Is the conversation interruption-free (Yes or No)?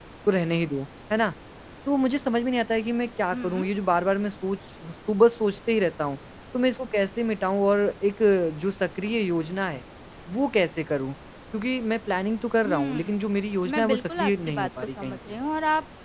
No